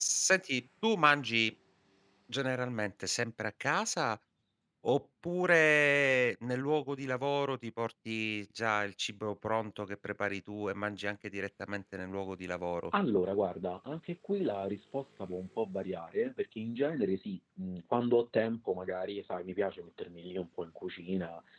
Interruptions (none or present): none